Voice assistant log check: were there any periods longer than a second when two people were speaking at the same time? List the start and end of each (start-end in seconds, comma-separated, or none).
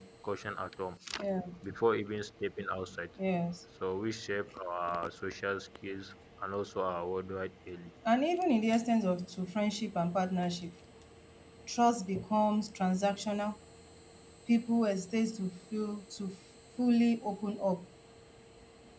none